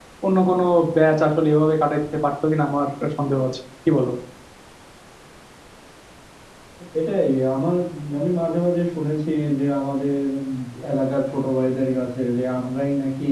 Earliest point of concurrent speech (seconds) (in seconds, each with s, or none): none